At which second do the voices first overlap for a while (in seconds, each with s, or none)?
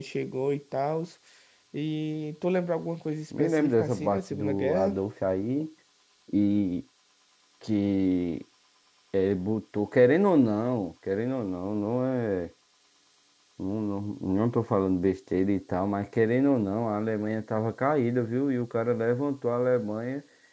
3.3 s